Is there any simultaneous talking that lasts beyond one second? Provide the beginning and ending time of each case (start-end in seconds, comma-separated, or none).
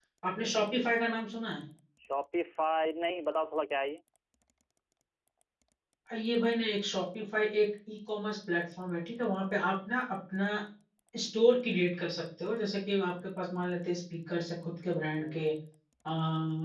none